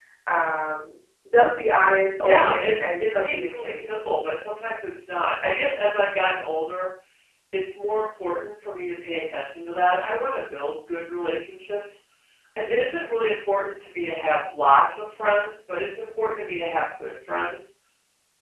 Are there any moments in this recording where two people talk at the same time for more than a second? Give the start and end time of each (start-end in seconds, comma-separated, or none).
2.2-3.8